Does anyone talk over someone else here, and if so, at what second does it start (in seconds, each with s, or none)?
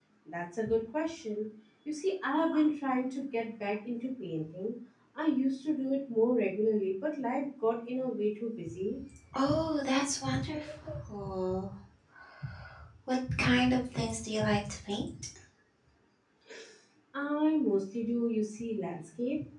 none